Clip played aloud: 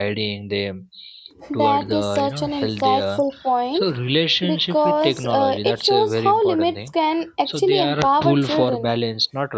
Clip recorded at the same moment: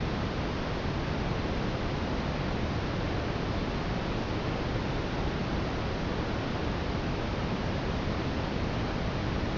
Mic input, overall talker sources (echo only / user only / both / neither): neither